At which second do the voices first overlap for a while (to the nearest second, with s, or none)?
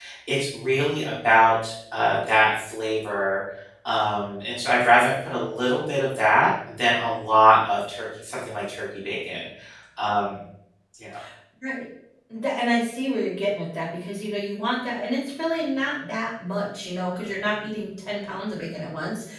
none